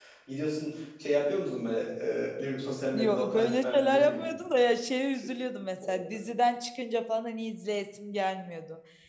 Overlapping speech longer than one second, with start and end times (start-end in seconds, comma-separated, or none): 2.9-4.3